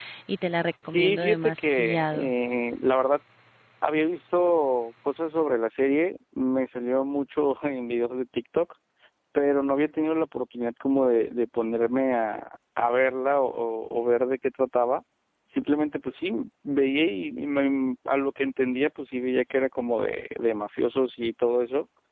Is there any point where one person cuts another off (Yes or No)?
Yes